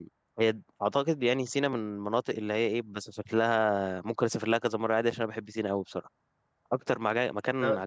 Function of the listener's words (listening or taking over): listening